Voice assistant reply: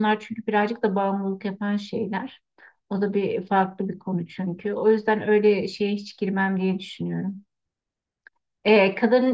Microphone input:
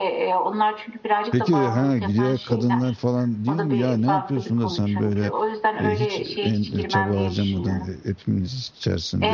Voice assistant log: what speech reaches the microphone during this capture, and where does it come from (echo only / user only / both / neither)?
both